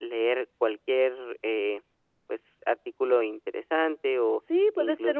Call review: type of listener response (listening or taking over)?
taking over